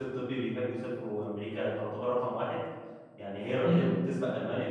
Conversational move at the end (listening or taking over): listening